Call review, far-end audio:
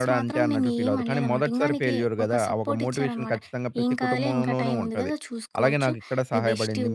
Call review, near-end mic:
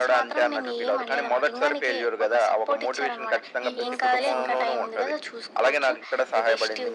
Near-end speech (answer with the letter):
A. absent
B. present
B